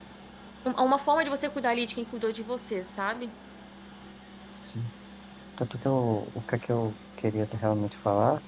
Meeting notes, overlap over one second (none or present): none